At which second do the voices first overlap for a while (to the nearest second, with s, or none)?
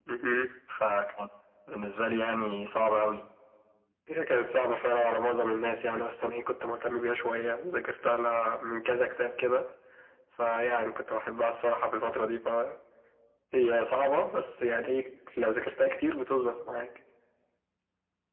none